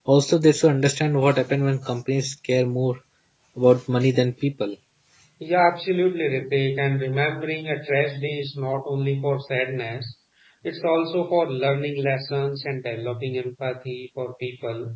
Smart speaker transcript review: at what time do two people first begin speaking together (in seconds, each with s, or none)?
none